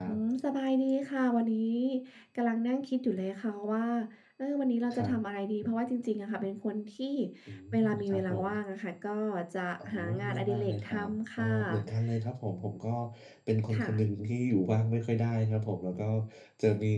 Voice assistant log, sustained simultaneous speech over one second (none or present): present